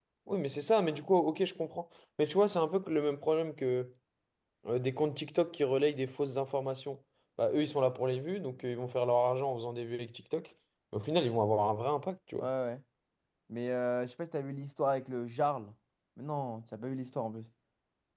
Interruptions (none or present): none